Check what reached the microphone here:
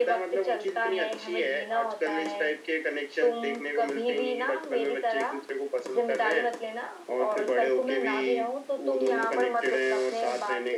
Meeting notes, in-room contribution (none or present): none